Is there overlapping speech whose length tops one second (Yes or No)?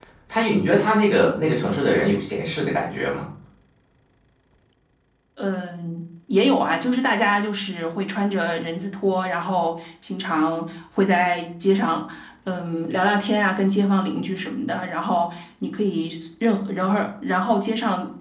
No